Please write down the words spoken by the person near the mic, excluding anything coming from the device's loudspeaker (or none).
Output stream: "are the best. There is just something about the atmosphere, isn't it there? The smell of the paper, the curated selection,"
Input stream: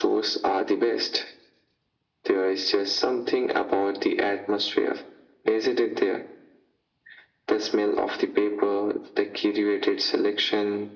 none